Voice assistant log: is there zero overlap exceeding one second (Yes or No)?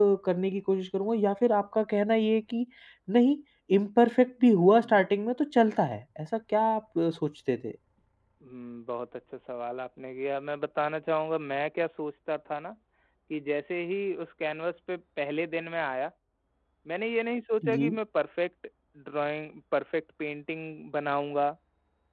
Yes